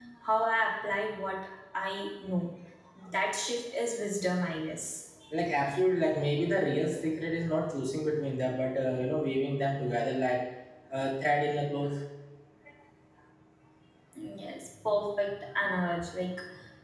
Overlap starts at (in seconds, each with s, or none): none